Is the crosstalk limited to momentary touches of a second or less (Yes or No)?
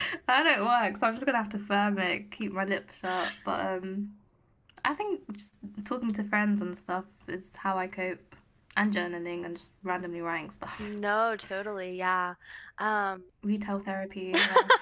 Yes